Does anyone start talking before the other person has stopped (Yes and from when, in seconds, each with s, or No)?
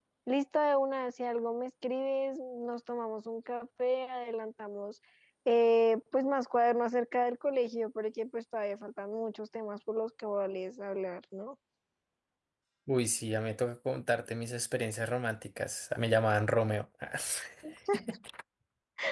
No